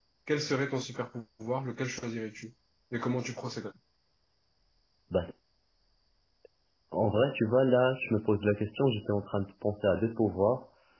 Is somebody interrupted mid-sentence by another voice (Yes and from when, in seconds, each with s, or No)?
No